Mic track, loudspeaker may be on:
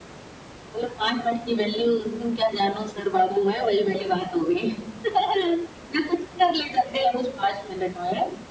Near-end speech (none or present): none